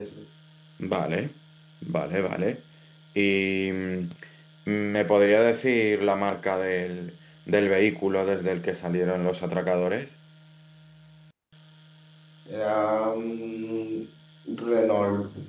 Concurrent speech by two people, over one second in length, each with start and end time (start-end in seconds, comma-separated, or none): none